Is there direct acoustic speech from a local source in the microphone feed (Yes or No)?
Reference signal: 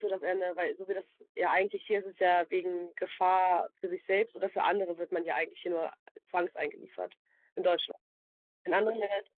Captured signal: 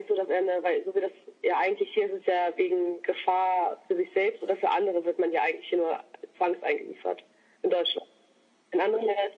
No